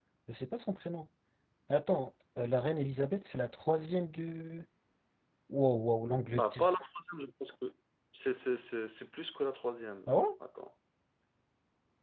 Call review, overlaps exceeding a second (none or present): none